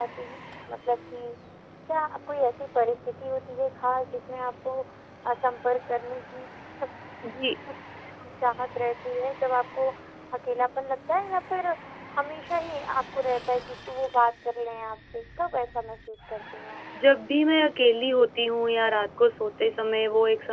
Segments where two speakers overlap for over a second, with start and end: none

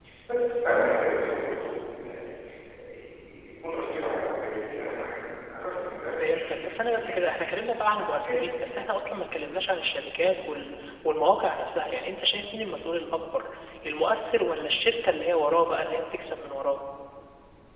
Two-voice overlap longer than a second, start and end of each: 6.2-7.5

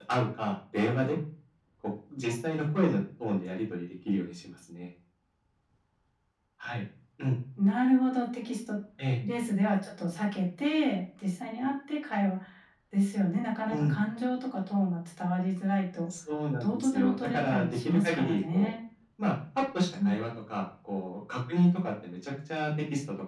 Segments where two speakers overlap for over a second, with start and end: 16.6-18.7

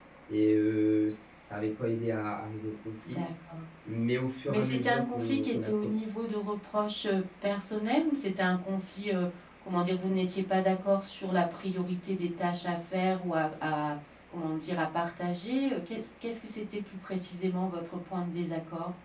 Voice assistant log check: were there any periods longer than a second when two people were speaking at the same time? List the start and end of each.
4.5-5.7

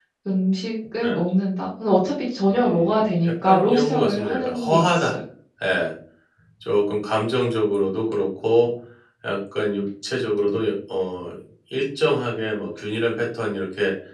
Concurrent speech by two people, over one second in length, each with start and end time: 2.5-5.2

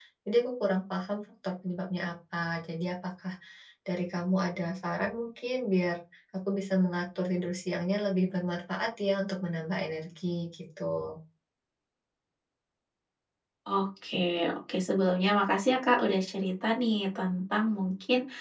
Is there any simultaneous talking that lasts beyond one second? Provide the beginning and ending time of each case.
none

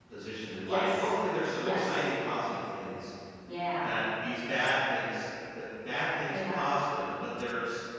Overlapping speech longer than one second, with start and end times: none

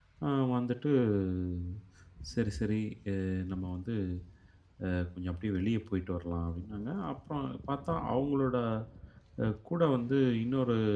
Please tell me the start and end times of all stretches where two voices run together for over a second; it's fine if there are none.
none

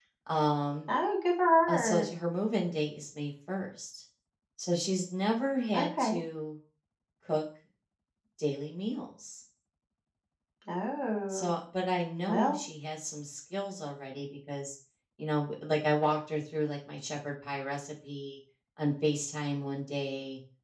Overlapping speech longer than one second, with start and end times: none

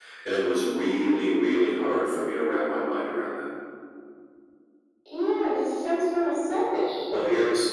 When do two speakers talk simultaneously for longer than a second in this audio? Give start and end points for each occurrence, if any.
none

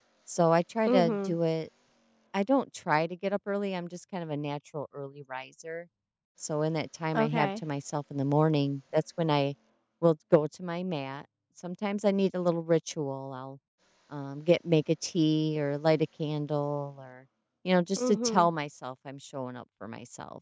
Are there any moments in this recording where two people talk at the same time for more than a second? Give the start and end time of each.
none

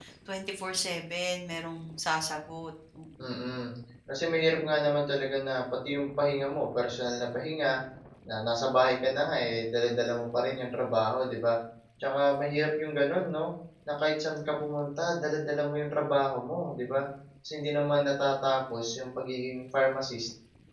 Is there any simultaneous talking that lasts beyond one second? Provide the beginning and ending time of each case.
none

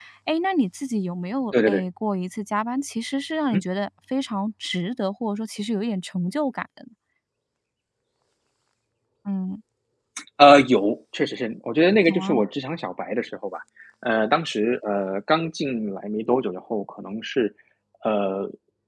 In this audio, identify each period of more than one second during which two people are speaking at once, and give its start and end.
none

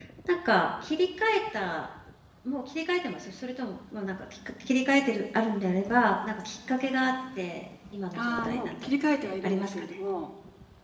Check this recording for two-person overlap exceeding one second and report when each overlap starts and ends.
8.2-10.0

